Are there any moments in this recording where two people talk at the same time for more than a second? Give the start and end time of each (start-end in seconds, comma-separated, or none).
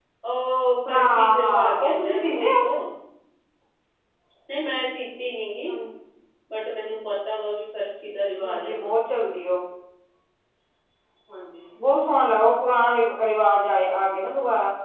0.9-2.5